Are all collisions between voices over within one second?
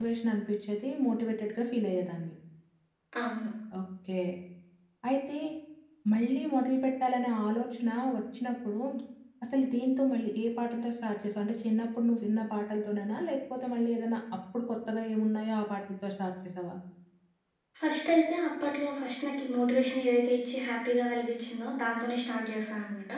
Yes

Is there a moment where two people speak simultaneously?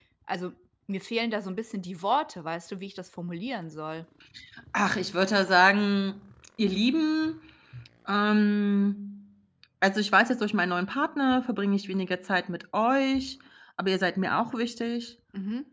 No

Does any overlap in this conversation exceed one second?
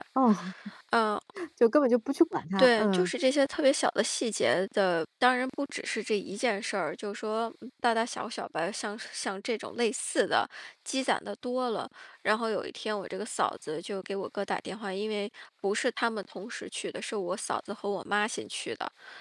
No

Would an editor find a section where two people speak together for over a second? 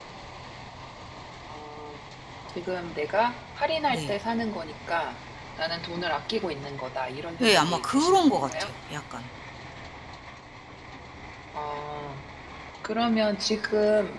Yes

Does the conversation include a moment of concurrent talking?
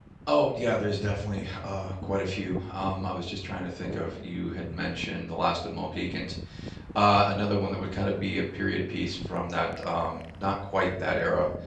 No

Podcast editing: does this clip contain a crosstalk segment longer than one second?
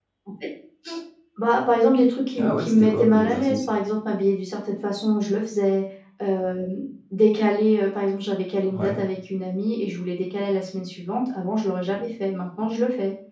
Yes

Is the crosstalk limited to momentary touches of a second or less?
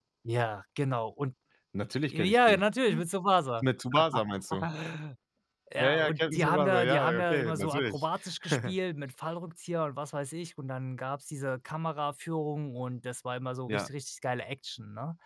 No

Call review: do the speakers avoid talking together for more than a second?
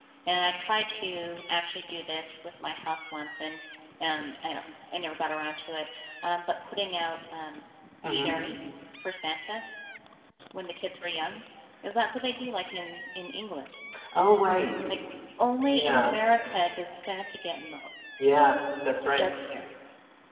Yes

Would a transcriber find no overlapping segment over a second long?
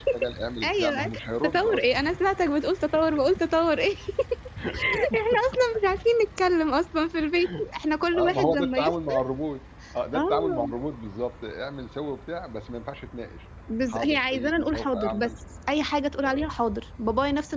No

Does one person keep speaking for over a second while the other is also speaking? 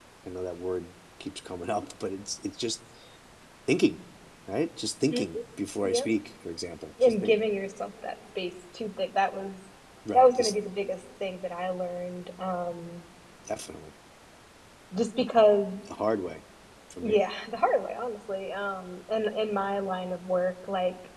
No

